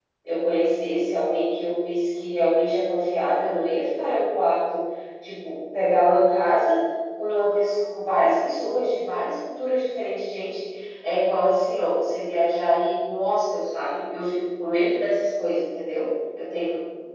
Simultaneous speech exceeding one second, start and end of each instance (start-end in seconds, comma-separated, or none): none